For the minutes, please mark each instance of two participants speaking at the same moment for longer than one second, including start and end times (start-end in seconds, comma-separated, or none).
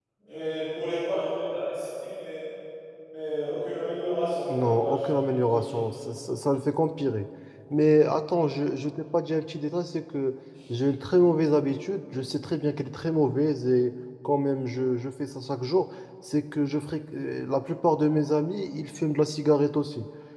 4.5-5.8